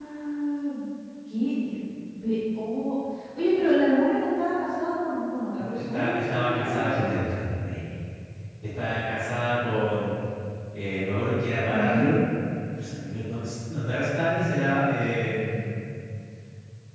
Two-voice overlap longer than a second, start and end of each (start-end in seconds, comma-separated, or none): 5.6-7.1